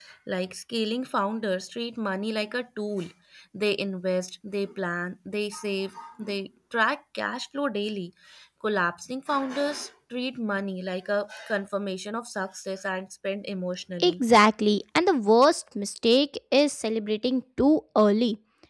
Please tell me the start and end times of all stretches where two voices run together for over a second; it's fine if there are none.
none

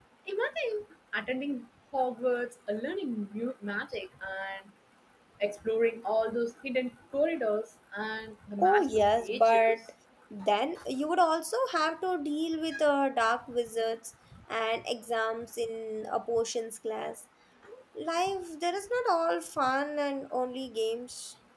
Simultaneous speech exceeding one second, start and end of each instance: 8.6-9.8

